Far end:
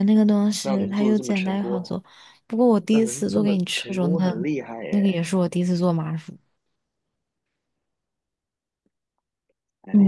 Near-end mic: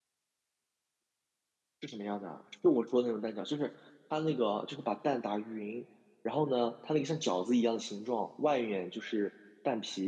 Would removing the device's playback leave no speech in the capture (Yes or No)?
No